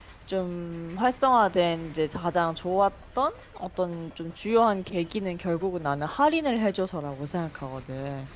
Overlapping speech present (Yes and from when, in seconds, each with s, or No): No